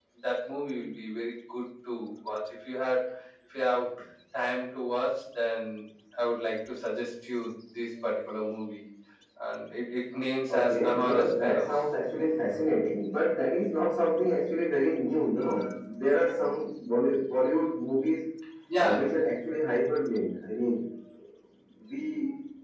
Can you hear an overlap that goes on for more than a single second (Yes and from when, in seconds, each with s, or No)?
Yes, from 10.5 s